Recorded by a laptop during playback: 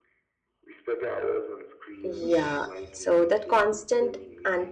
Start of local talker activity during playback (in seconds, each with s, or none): 2.0 s